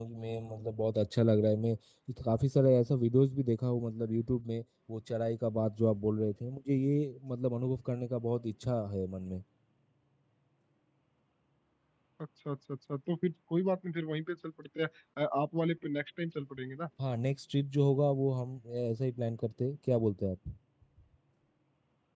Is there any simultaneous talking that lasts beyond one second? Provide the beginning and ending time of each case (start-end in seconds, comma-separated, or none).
none